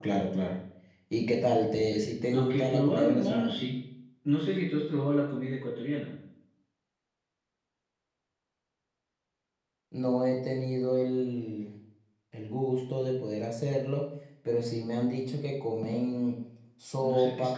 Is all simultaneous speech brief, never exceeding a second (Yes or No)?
No